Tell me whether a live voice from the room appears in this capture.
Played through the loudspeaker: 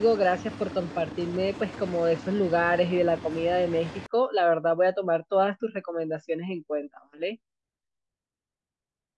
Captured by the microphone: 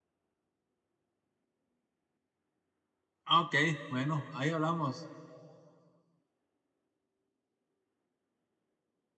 Yes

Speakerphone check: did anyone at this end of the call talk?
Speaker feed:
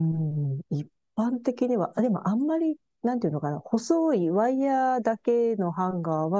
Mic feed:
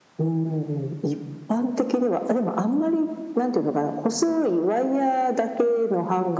No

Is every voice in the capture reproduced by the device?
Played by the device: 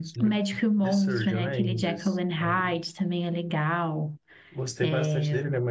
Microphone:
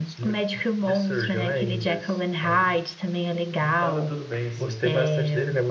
No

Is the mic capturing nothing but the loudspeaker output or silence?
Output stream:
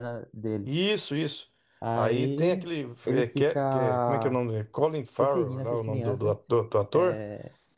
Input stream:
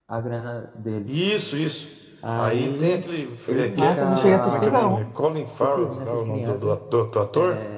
No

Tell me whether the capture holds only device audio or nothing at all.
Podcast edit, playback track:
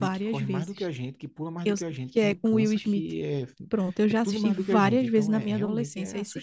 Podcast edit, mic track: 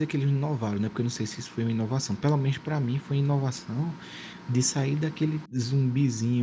No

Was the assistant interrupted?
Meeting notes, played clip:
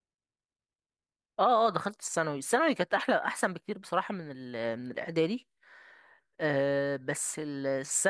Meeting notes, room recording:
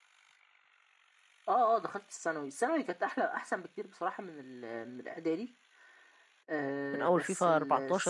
Yes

